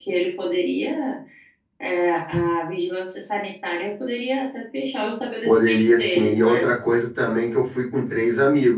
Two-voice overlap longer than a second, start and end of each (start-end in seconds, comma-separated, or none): 5.4-6.7